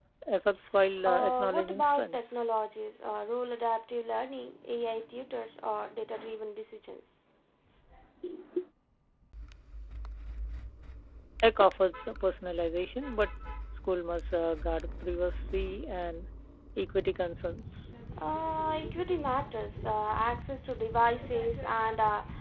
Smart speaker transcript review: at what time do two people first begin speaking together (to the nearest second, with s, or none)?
1 s